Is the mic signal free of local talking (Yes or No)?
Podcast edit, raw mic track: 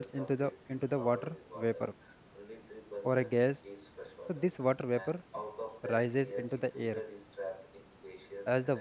No